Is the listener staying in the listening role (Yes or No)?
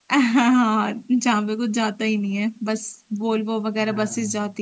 Yes